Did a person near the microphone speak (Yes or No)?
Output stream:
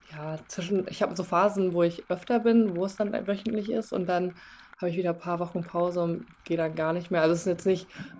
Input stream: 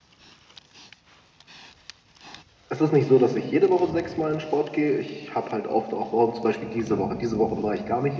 Yes